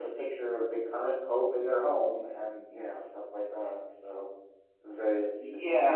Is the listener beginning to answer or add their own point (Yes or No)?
Yes